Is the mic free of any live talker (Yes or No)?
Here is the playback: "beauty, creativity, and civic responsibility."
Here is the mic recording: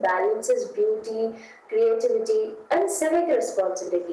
Yes